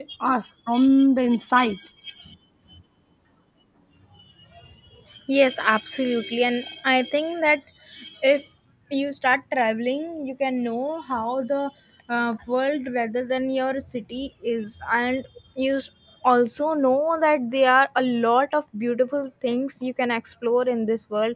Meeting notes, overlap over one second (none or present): none